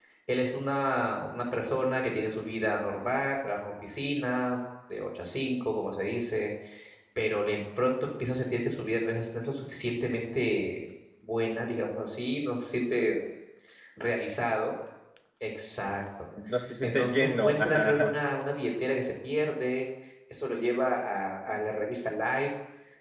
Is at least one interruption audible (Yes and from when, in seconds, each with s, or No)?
Yes, from 16.8 s